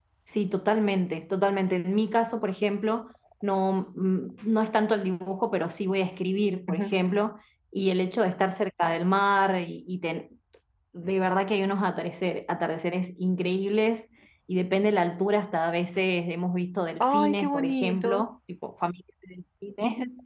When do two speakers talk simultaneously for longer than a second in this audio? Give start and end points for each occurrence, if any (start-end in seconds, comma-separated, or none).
17.0-18.2